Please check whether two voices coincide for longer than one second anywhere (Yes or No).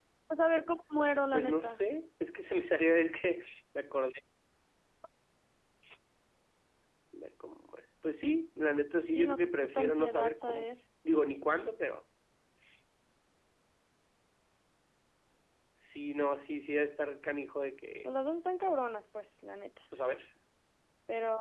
Yes